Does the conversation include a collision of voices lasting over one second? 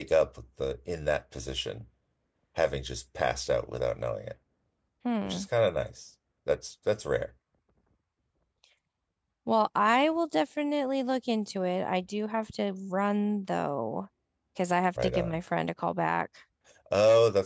No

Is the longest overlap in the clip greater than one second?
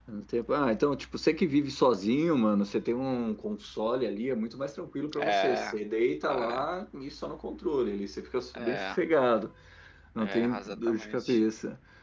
Yes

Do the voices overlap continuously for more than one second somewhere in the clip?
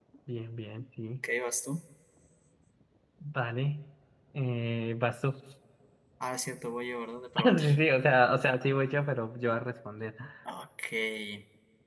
No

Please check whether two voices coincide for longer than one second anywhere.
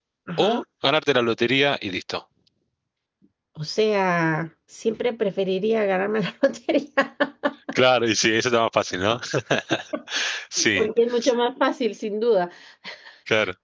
No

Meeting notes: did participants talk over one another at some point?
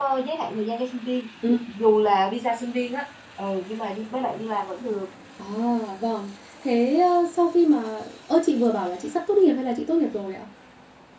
No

